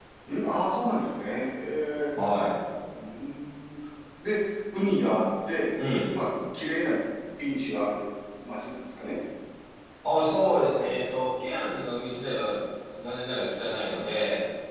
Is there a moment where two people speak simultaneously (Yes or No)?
No